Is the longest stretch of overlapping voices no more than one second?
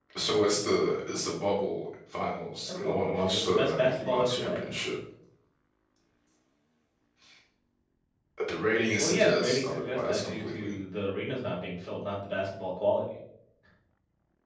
No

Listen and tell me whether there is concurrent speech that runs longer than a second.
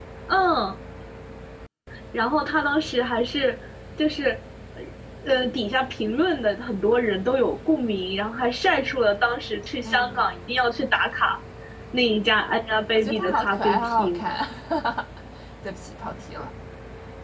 Yes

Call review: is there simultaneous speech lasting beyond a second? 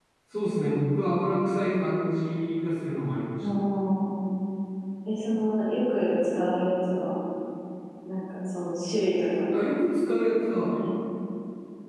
No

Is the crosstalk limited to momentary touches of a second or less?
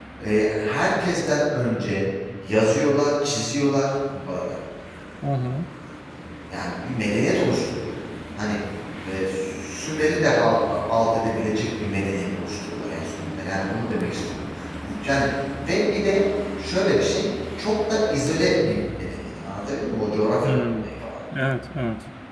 Yes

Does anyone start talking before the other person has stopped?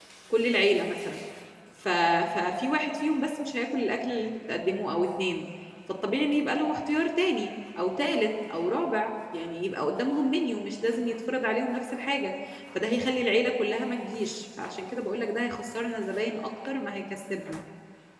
No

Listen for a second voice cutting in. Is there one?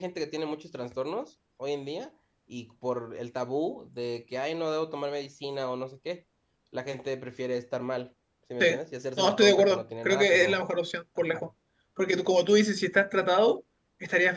Yes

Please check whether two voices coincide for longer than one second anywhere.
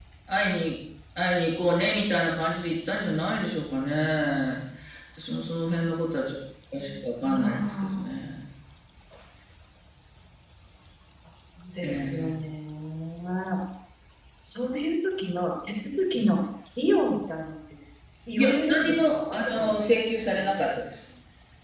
Yes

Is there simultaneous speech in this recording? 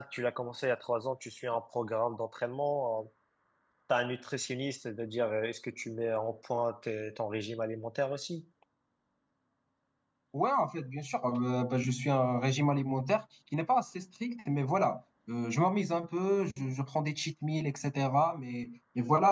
No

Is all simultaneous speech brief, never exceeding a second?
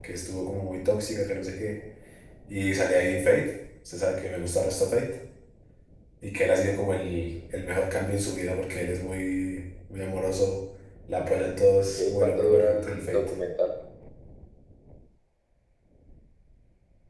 No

